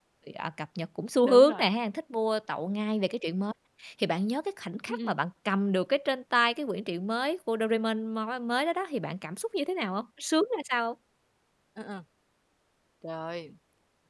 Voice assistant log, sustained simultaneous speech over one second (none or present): none